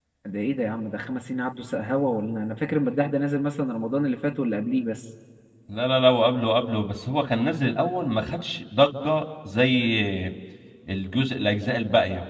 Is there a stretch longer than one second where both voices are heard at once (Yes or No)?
No